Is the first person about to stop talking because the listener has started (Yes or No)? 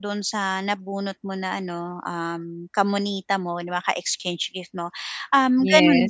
No